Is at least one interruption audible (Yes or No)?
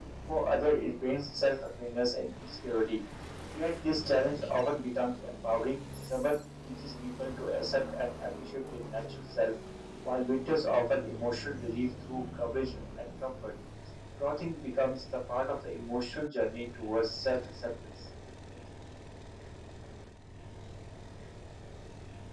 No